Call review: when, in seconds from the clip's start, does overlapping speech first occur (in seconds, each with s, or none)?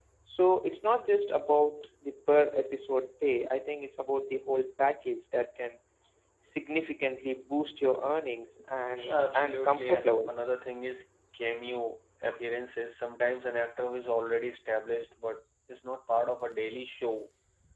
9.1 s